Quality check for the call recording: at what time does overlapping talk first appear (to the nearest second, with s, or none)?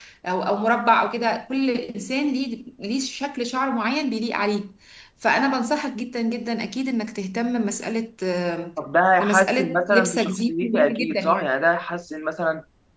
9 s